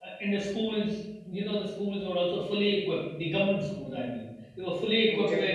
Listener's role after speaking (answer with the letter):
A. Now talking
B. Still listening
B